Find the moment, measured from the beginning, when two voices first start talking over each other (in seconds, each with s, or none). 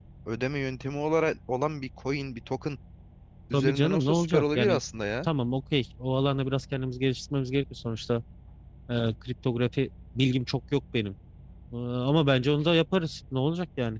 3.5 s